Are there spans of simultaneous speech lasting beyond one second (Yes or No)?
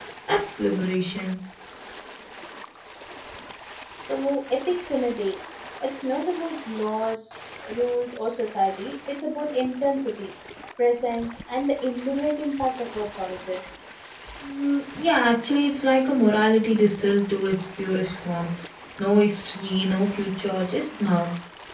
No